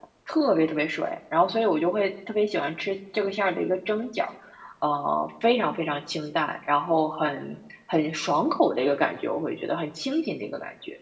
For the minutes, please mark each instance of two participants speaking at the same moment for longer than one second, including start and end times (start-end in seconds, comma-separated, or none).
none